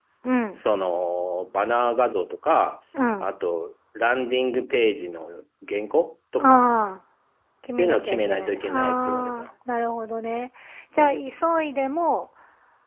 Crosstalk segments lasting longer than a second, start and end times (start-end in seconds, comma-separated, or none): 7.8-9.5